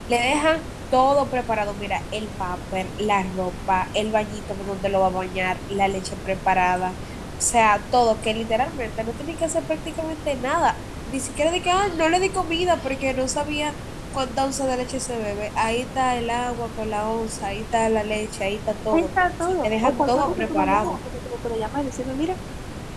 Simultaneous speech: Yes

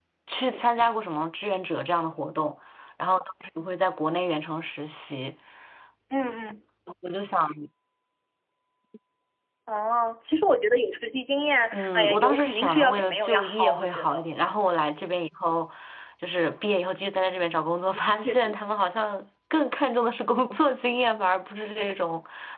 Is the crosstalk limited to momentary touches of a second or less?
No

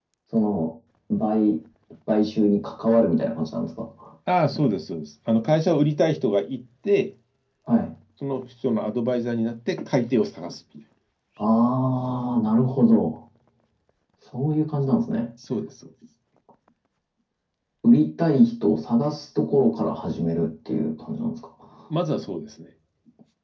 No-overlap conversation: Yes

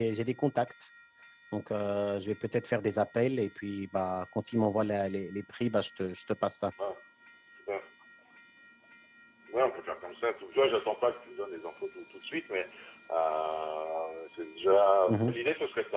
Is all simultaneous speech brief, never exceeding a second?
Yes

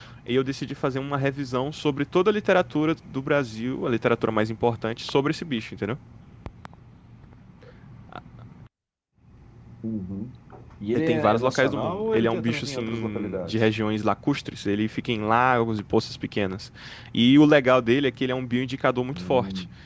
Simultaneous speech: Yes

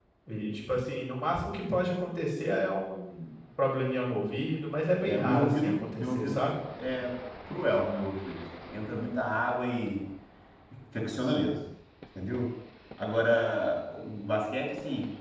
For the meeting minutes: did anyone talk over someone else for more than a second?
Yes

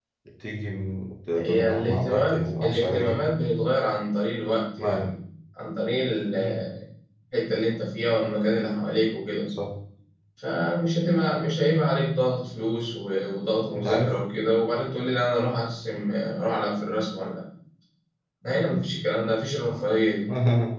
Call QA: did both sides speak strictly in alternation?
No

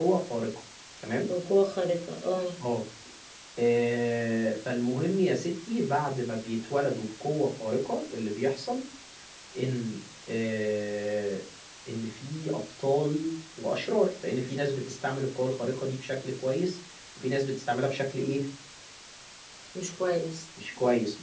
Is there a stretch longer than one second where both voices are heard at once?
No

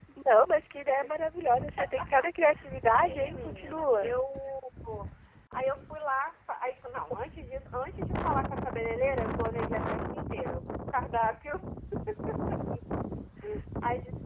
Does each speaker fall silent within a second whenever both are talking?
No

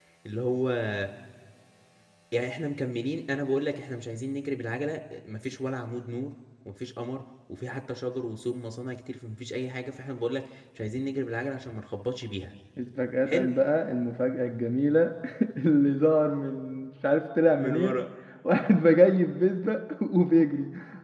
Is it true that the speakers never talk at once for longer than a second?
Yes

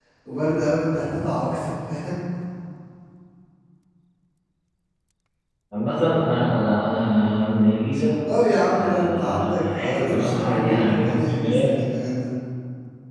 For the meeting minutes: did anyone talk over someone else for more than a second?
Yes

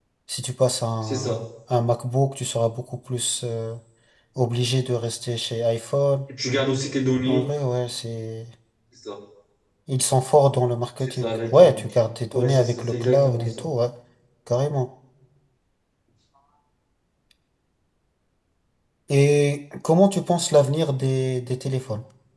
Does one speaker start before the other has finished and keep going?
Yes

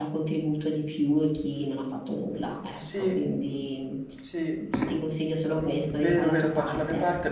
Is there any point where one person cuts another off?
Yes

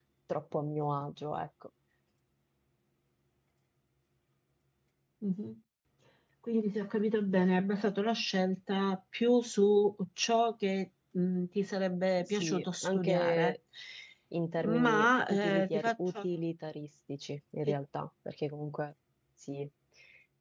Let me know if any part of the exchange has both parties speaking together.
Yes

